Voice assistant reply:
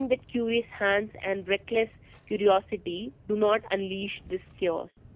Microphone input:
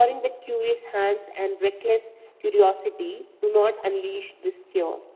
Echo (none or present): present